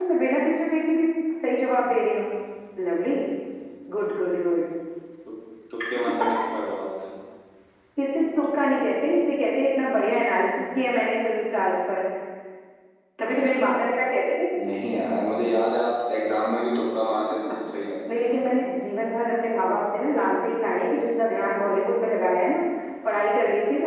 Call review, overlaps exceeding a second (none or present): none